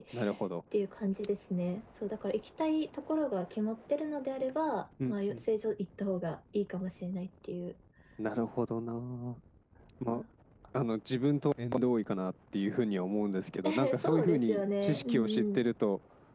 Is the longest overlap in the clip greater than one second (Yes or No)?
Yes